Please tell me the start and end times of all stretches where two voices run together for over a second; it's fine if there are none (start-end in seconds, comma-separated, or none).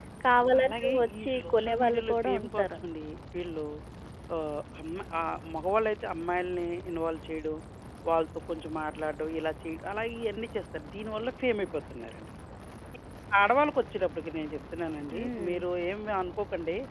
0.6-2.7